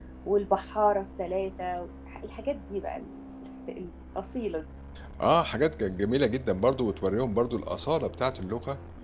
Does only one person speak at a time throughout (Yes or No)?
Yes